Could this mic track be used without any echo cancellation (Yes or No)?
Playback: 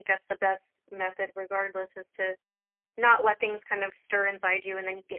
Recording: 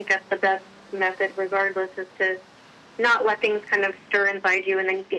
No